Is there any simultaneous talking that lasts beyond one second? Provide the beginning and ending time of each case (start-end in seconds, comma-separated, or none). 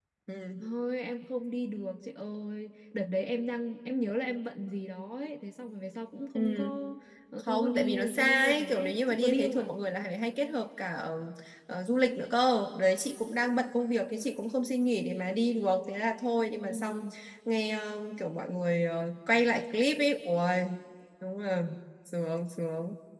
7.4-9.7